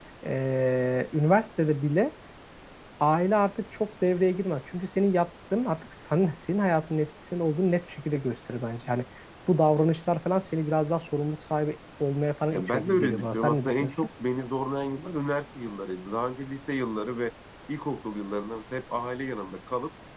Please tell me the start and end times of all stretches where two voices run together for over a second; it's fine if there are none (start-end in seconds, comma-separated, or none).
12.5-14.1